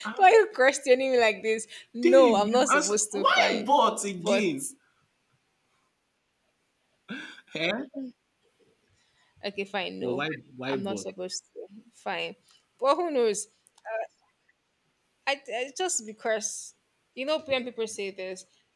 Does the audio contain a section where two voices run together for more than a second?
Yes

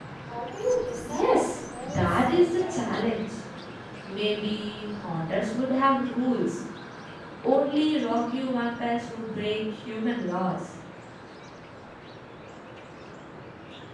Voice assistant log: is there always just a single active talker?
No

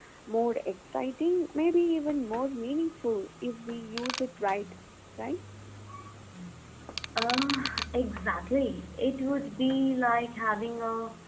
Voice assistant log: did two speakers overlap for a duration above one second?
No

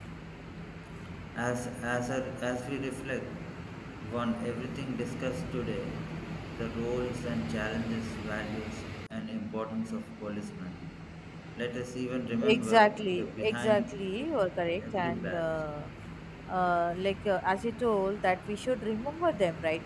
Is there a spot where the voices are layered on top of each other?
Yes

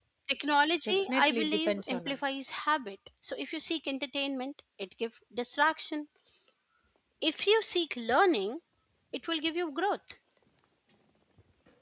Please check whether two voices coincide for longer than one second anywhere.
Yes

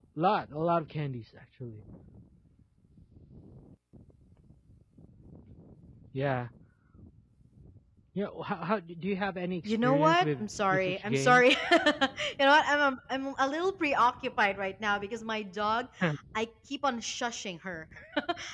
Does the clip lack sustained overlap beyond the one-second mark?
No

